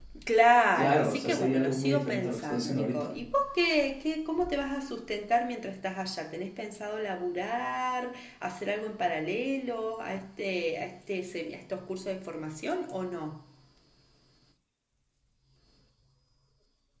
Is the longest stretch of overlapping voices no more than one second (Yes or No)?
No